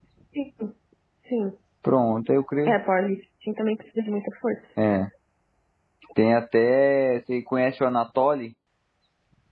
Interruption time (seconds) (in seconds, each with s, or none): none